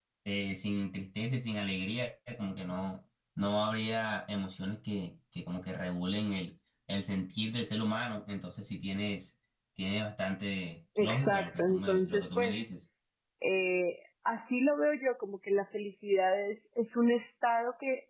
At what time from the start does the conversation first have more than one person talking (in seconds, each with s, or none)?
11.0 s